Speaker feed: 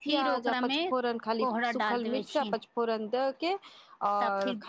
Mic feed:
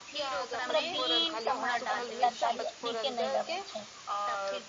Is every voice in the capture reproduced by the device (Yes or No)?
No